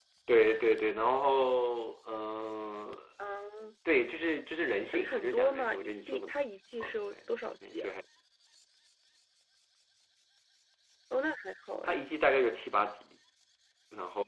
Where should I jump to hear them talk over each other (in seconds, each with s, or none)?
4.9 s